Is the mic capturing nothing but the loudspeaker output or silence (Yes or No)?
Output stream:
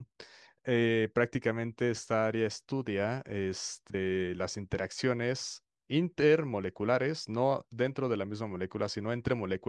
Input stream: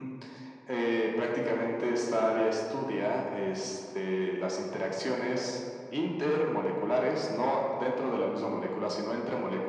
Yes